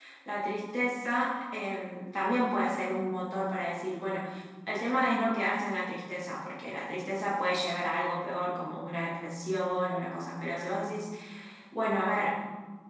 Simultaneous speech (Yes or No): No